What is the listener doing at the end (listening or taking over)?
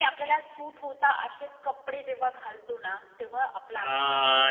taking over